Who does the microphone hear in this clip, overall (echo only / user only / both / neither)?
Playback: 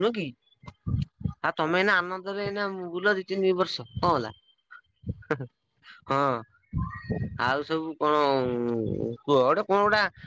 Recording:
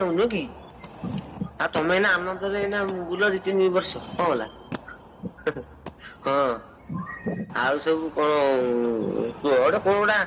echo only